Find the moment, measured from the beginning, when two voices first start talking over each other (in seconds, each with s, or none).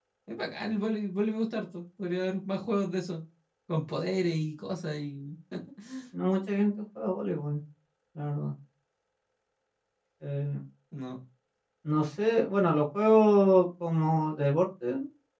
none